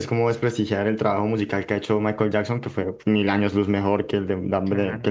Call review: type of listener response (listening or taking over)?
taking over